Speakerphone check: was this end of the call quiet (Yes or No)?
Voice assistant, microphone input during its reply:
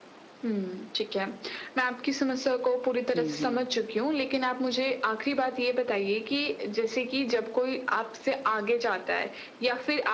No